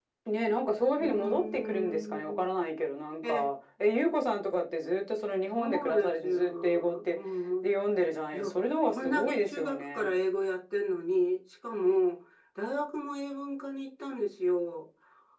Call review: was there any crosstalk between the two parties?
Yes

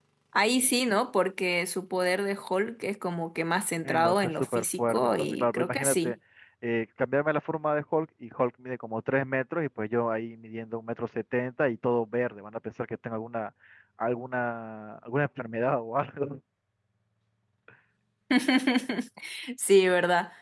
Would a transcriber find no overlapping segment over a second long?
No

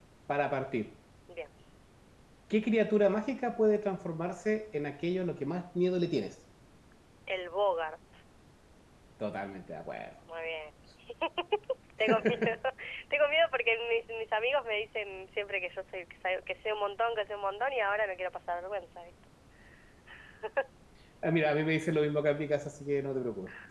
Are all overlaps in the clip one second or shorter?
Yes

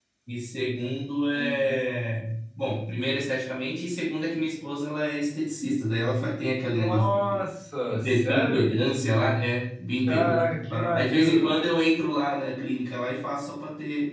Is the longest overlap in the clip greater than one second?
Yes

